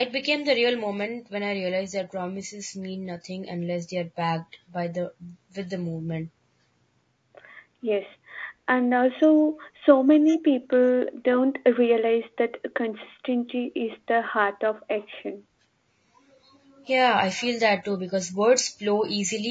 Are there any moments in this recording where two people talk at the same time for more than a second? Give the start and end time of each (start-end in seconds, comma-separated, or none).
none